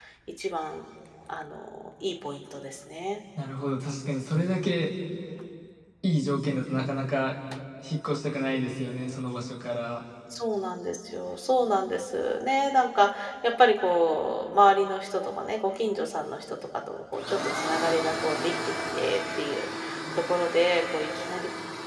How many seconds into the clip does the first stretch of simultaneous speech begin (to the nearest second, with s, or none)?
none